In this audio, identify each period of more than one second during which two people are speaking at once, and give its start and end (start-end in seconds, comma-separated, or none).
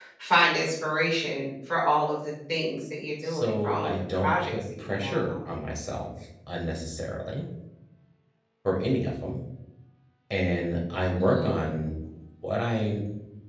3.2-5.5